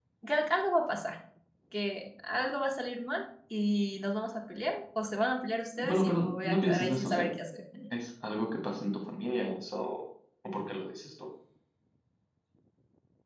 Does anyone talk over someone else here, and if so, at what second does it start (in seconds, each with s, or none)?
5.8 s